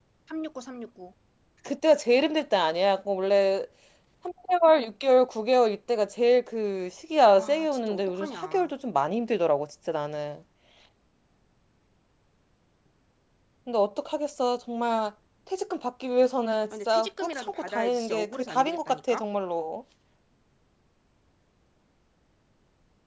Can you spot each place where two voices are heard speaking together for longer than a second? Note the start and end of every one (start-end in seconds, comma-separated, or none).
7.3-8.7, 16.9-19.2